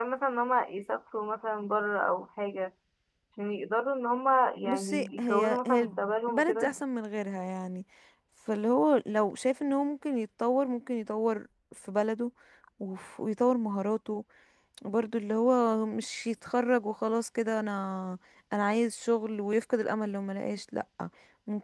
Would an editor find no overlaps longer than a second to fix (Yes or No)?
No